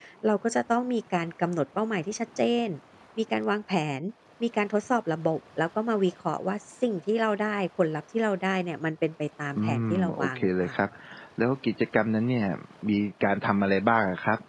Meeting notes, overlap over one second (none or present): present